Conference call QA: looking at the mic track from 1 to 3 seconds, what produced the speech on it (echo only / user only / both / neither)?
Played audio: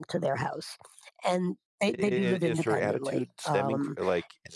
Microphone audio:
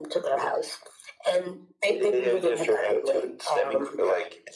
echo only